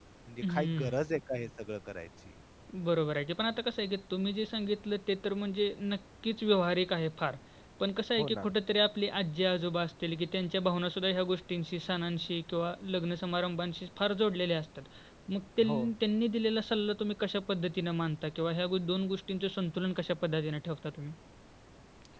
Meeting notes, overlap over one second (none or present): none